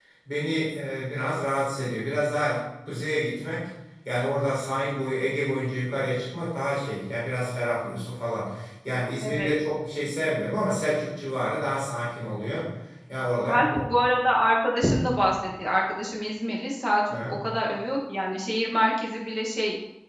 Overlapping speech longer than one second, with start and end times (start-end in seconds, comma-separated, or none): none